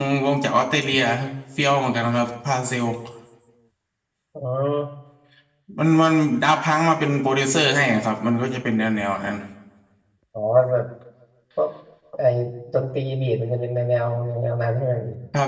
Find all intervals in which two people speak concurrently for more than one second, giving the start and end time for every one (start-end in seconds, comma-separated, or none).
none